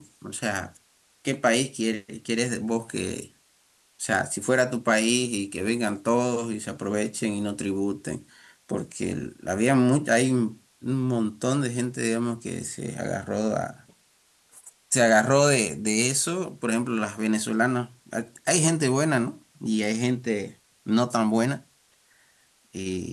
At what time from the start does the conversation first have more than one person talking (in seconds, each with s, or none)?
none